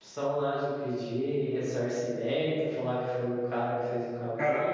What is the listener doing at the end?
taking over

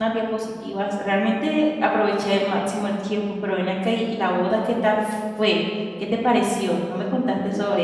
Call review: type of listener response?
taking over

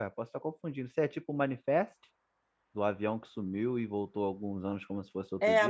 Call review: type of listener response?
taking over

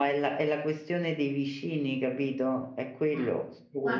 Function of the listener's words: taking over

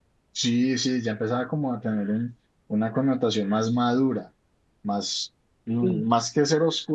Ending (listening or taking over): listening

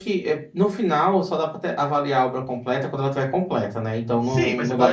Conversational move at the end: taking over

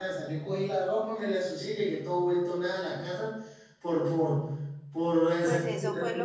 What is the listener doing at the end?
taking over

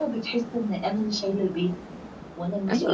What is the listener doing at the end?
taking over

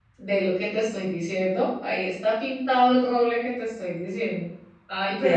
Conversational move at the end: listening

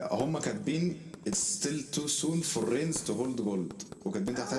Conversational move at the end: listening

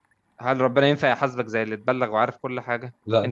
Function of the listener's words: listening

